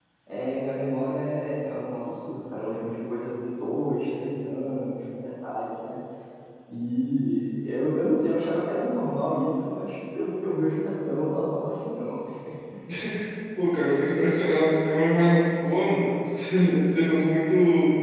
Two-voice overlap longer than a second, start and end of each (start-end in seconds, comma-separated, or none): none